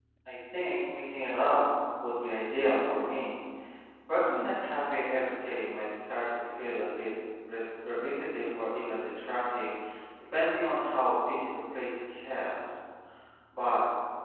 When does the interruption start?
none

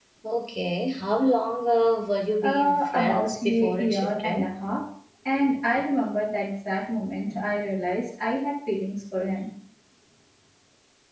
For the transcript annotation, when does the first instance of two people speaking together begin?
2 s

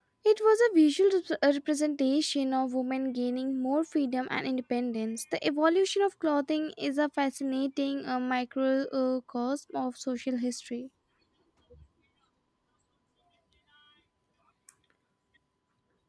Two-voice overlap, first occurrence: none

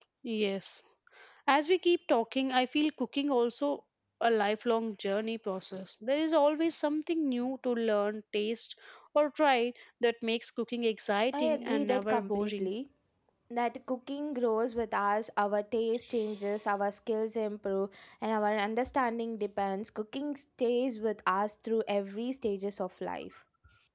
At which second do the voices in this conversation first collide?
11 s

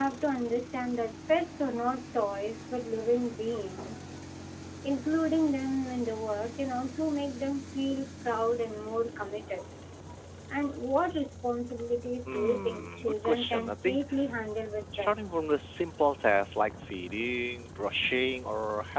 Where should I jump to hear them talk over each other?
12 s

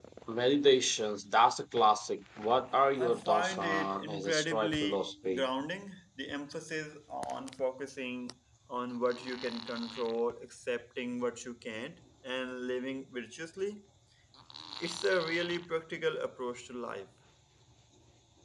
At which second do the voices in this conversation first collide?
3 s

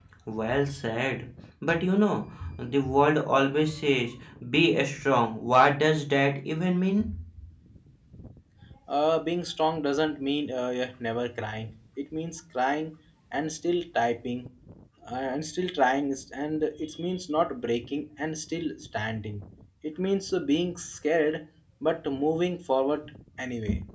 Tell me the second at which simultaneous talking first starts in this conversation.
none

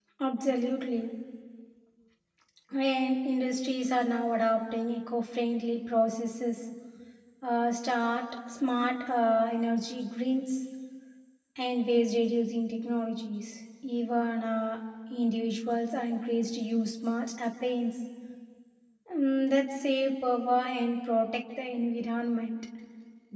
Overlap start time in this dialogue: none

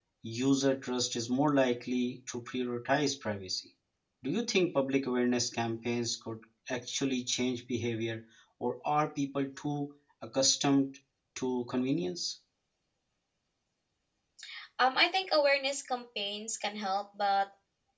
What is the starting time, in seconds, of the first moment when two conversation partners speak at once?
none

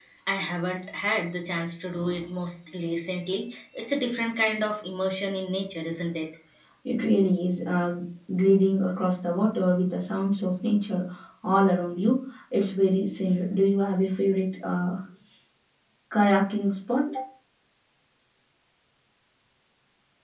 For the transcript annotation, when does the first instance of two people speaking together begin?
none

